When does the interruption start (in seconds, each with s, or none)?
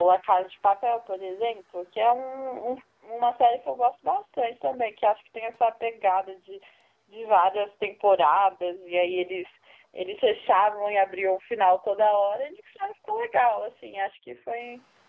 none